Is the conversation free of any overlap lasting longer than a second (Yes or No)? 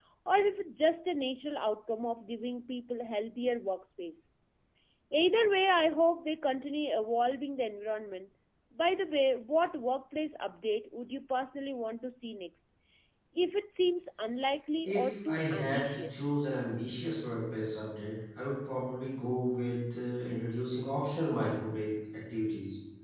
No